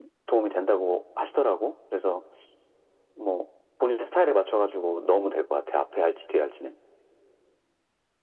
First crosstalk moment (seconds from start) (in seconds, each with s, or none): none